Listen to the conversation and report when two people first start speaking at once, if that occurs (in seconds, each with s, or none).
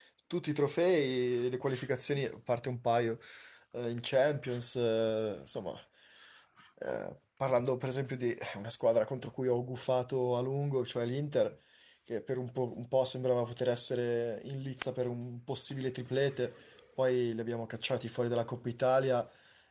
none